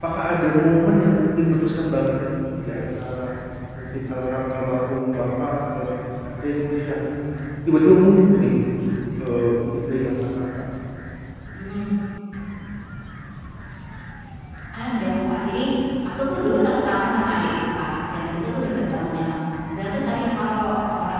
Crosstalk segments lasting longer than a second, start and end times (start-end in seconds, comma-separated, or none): none